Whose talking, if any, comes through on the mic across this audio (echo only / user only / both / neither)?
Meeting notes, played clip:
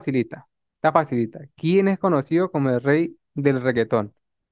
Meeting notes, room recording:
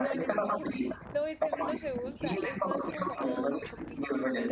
both